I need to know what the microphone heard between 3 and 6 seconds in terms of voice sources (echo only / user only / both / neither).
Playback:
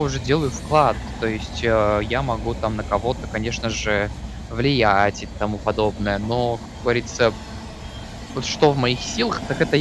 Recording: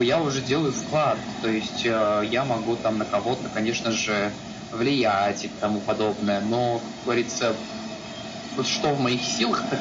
echo only